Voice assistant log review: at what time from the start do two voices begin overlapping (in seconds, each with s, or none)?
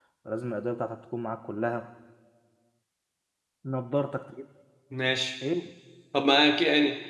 none